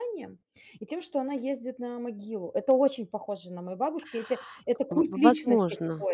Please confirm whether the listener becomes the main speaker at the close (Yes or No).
Yes